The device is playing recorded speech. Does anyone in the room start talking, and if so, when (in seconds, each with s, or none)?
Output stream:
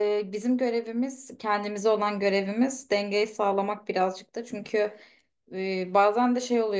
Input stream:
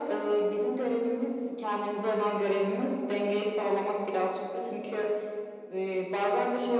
none